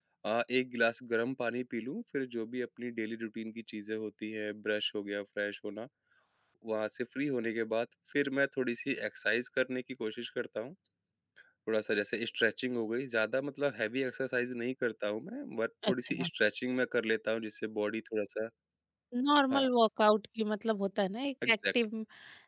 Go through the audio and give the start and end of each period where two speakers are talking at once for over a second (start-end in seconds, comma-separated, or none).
none